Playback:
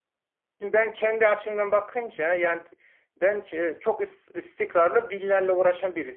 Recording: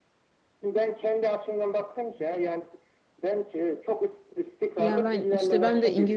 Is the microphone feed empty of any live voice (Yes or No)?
No